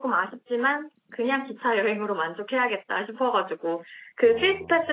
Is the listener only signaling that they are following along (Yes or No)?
Yes